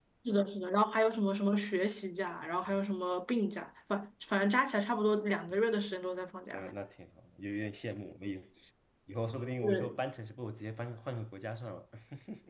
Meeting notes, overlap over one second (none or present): none